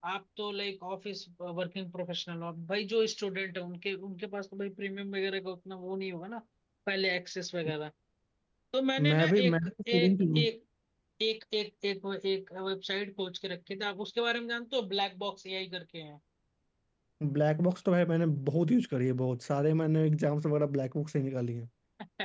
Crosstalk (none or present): present